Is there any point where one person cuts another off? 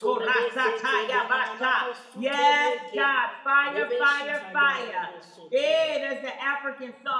Yes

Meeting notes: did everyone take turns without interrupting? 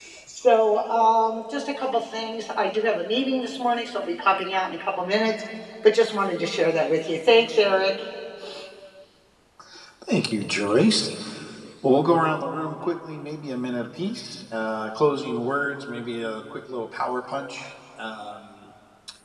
Yes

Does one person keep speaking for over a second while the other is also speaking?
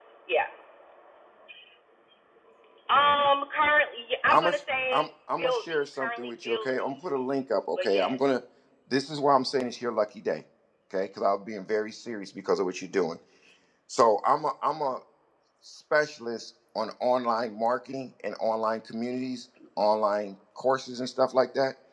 Yes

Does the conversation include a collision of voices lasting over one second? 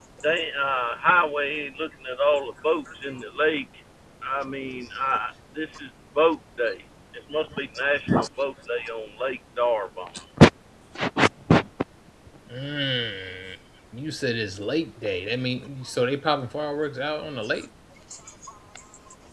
No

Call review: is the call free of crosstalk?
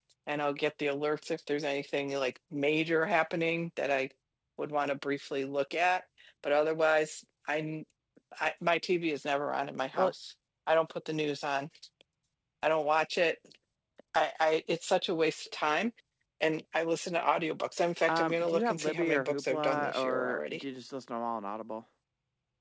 No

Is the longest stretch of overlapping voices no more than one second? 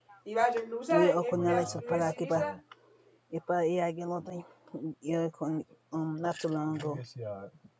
No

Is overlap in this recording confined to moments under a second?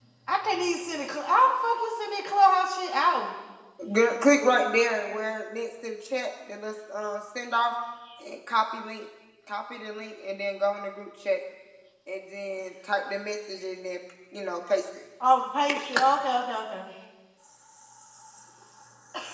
Yes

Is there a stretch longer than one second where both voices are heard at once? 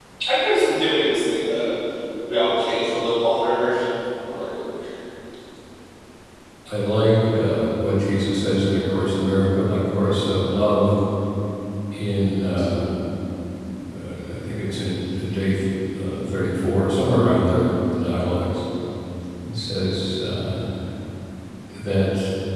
No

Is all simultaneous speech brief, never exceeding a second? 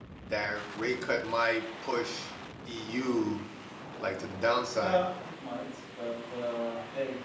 Yes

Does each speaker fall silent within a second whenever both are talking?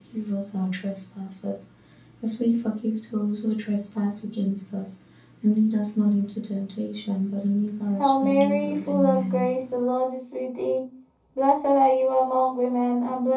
No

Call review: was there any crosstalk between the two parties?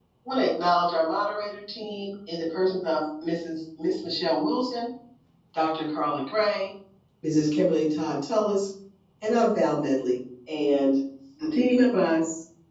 No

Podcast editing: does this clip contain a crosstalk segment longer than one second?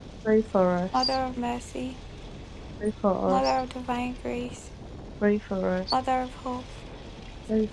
No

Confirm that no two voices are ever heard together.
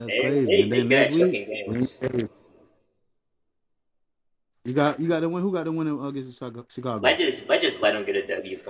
No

